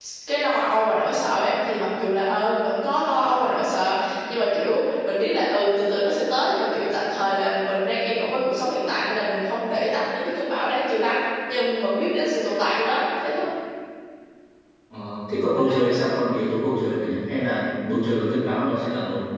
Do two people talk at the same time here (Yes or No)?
No